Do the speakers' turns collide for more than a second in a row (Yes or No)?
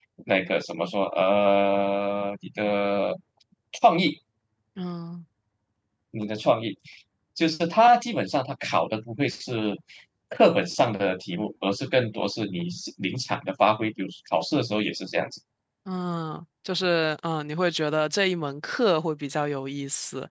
No